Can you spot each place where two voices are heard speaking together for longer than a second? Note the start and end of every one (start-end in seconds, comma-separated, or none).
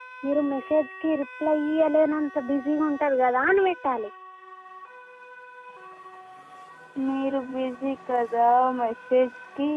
none